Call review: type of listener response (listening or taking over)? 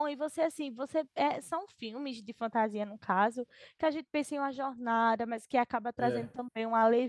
listening